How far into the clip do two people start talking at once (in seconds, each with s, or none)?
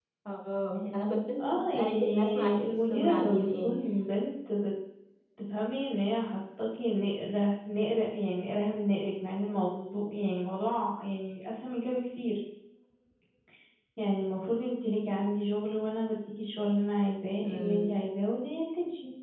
1.4 s